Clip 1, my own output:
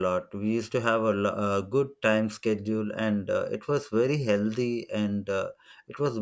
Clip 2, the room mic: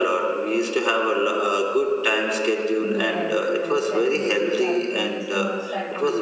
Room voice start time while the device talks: 2.8 s

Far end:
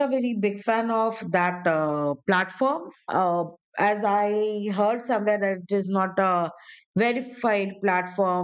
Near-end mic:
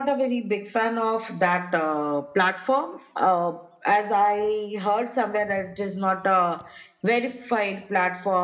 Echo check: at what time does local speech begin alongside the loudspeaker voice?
none

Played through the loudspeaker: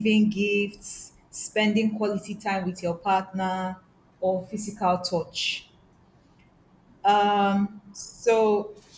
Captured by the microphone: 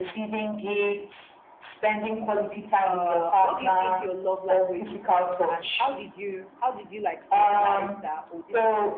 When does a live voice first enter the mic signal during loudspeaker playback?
2.8 s

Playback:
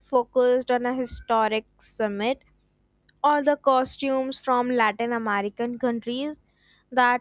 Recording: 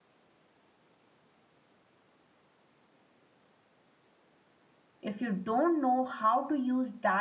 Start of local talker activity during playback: 5.0 s

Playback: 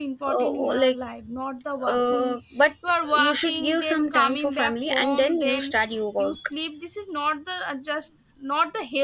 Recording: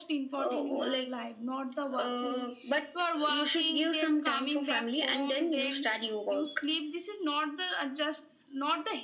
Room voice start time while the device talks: none

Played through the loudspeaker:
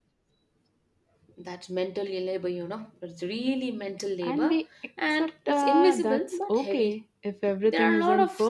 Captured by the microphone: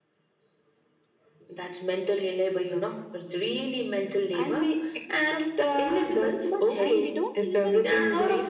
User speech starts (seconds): 6.8 s

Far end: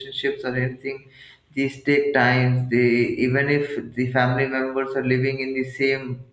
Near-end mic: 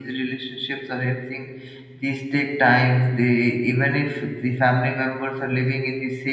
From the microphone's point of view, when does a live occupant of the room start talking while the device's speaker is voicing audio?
none

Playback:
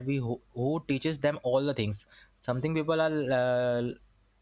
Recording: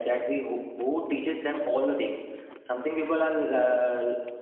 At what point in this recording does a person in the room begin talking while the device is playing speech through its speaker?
none

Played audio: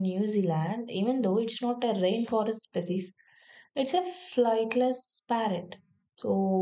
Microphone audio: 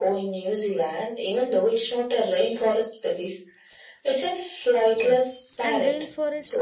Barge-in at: 4.9 s

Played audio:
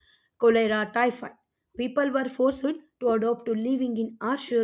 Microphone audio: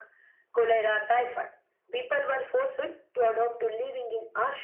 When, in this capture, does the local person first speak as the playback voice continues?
none

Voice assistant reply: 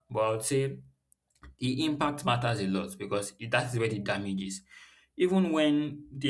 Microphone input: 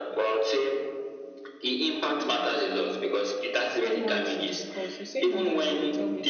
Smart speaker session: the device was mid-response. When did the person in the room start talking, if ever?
3.8 s

